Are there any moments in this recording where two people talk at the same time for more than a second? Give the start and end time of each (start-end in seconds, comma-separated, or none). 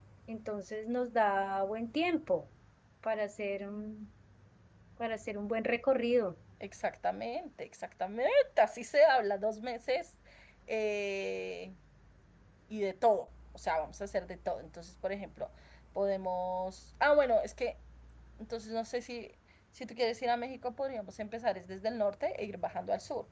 none